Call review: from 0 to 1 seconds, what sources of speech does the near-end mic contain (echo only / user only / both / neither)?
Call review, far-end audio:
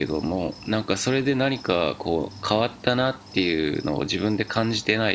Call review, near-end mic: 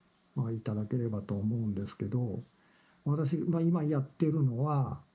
user only